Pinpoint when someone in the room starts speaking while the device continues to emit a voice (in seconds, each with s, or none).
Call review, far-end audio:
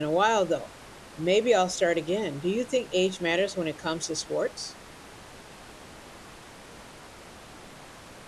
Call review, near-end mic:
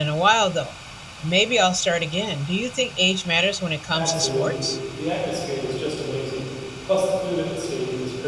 3.9 s